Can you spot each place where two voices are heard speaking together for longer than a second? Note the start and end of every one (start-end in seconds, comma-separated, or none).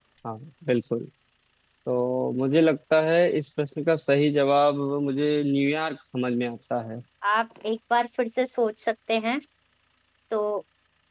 none